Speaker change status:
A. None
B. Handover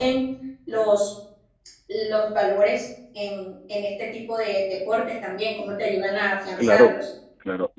B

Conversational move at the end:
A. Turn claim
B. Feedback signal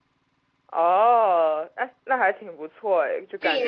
A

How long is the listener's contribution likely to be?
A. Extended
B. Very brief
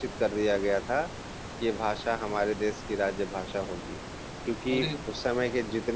B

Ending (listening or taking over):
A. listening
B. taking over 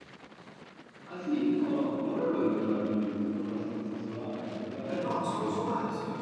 B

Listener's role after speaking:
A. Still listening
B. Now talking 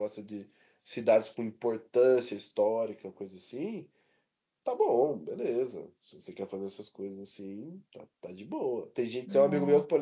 A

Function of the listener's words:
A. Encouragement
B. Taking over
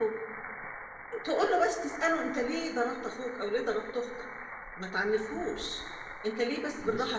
A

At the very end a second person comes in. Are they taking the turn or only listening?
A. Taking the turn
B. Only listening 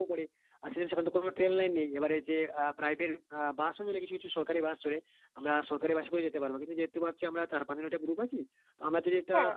B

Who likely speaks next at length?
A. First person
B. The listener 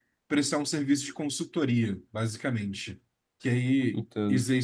A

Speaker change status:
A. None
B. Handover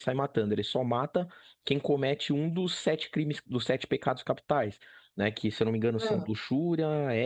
A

